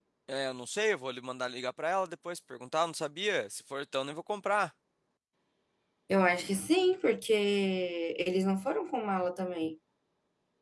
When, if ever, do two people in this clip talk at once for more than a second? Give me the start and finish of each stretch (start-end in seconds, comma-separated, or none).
none